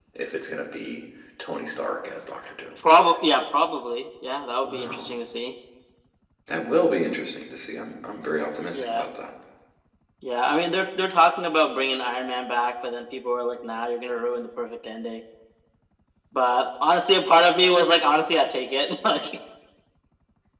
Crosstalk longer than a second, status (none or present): none